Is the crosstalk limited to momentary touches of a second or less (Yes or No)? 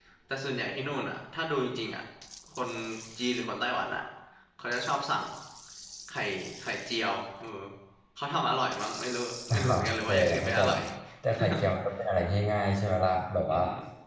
No